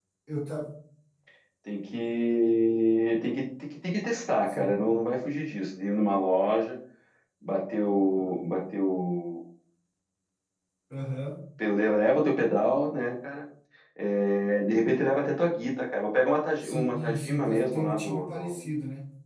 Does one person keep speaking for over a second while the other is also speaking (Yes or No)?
Yes